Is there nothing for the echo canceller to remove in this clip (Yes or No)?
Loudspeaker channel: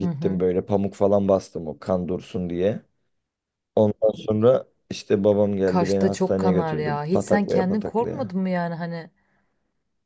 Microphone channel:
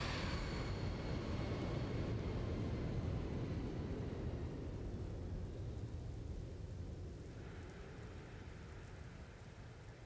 Yes